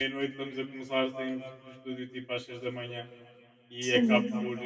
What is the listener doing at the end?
listening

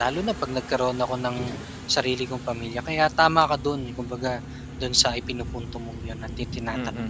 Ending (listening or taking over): taking over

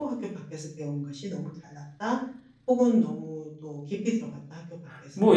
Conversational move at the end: taking over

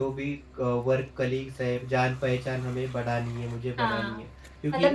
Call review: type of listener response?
taking over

